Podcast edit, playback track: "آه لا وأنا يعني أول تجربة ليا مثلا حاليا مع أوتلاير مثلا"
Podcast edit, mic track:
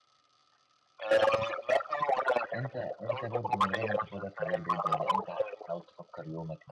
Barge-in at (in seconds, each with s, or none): 2.5 s